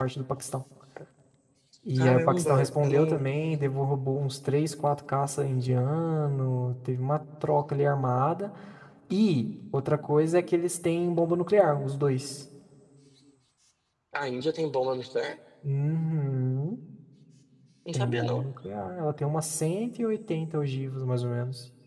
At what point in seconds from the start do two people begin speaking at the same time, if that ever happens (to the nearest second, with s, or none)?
2 s